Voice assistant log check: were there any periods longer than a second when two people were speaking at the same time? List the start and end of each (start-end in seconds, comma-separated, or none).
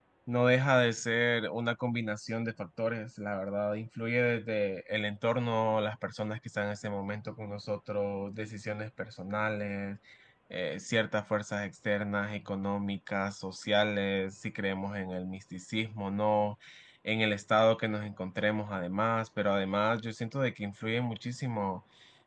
none